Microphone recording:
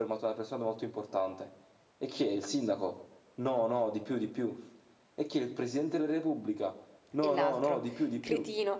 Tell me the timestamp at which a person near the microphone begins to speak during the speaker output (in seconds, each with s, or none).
7.2 s